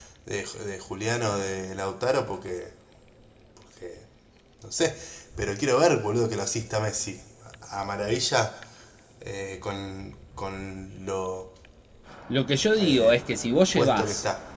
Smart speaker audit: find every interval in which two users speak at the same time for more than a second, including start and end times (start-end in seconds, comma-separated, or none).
none